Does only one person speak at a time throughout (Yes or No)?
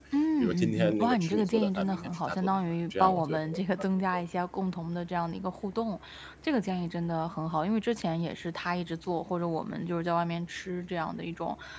No